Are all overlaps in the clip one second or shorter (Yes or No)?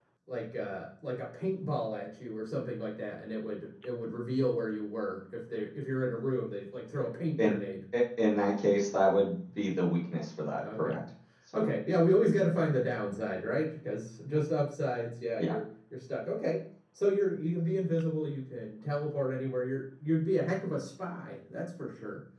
Yes